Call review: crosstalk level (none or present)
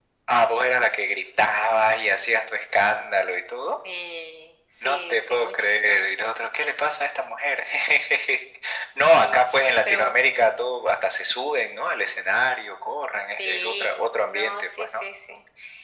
present